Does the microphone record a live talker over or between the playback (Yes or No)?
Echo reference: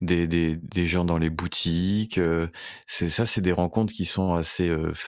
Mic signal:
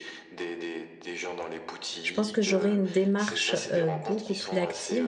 Yes